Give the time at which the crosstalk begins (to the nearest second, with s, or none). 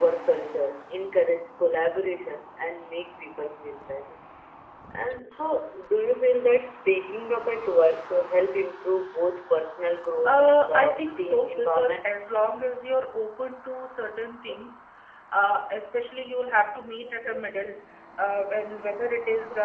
10 s